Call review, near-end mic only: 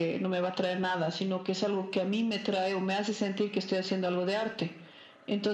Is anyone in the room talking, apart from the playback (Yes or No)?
No